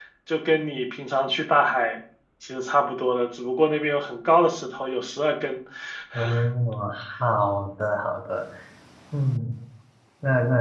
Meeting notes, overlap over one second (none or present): none